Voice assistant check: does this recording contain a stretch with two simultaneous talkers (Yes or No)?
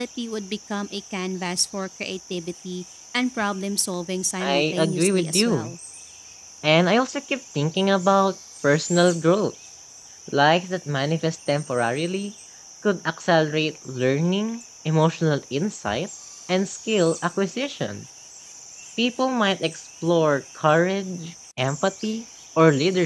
Yes